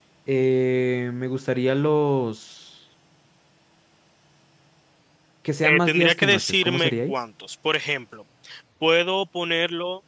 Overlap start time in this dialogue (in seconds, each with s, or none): 5.6 s